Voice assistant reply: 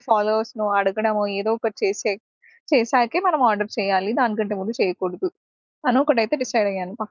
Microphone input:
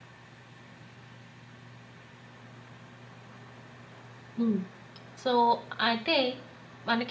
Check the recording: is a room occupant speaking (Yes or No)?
Yes